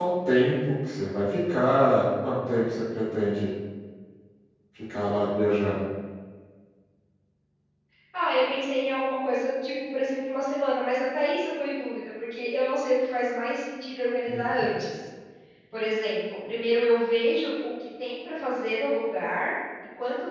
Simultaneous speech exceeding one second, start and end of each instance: none

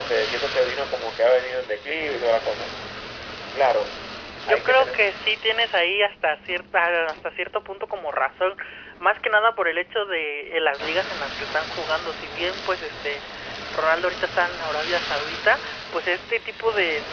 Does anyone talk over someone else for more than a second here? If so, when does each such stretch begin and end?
none

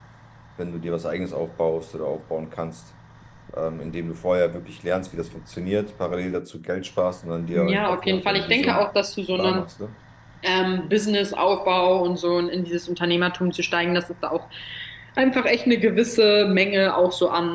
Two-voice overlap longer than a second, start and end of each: 7.5-8.8

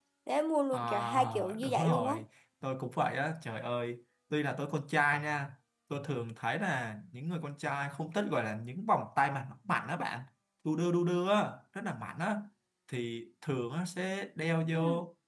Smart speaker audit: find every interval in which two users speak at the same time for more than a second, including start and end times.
0.7-2.1

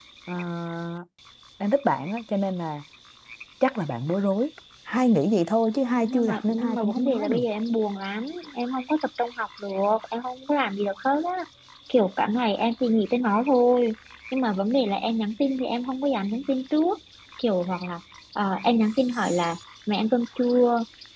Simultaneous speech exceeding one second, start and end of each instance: 6.0-7.4

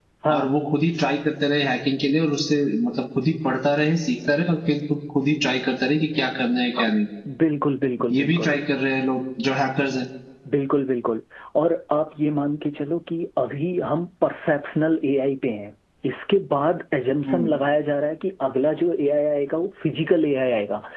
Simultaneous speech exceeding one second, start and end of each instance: none

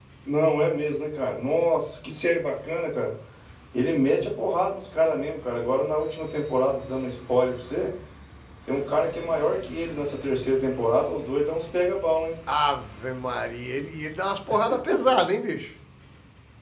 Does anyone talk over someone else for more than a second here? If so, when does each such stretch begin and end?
none

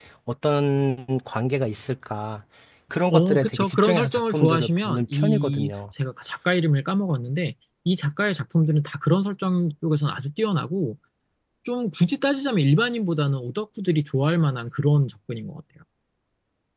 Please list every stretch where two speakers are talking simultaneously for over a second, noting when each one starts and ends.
3.1-5.7

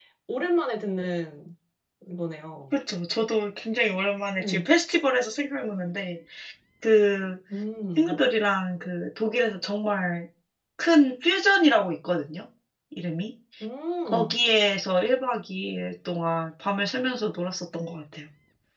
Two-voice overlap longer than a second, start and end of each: none

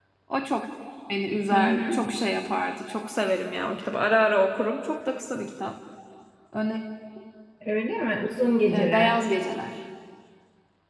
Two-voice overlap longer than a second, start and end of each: none

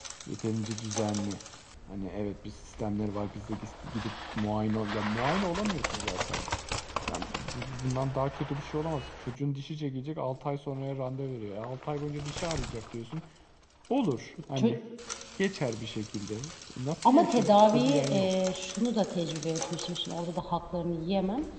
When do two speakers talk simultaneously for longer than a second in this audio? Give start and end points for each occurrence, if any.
17.0-18.3

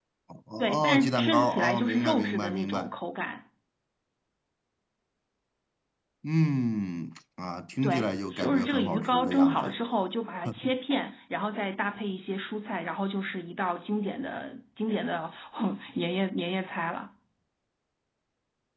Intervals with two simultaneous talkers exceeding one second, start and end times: 0.6-2.9, 7.8-9.7

